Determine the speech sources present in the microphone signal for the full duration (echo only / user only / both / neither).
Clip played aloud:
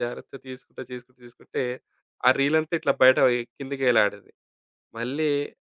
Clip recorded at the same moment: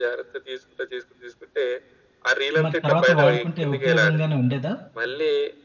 both